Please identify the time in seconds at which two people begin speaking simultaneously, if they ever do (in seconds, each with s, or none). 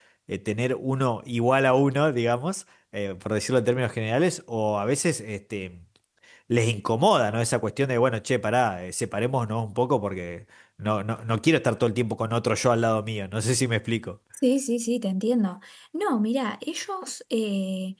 none